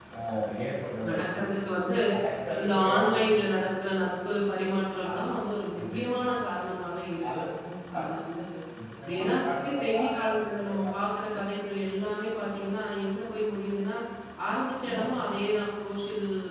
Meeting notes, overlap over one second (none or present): present